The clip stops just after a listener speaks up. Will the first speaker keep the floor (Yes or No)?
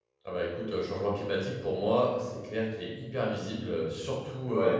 Yes